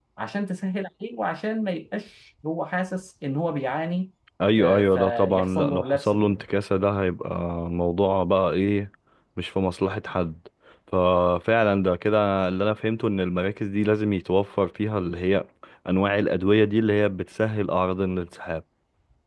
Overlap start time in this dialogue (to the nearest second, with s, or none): 5 s